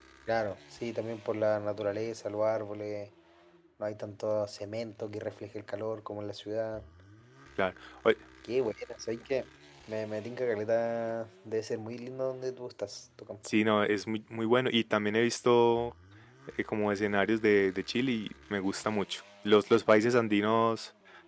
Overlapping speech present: No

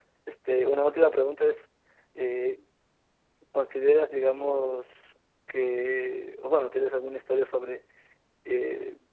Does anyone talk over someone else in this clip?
No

